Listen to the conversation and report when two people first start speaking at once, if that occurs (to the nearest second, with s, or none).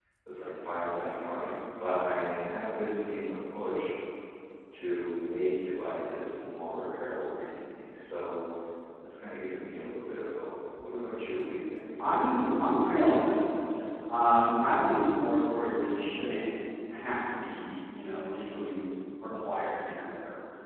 none